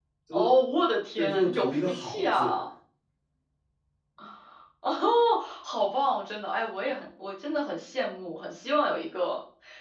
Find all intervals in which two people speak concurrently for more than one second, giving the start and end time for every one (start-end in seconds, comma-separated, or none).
1.2-2.6